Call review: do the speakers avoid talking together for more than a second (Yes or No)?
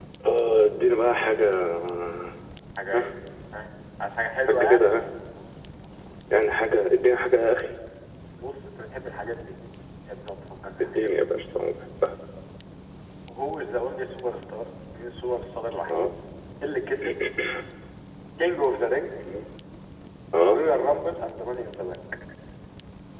Yes